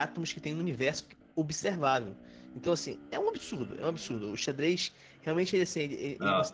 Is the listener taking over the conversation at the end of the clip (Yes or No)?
No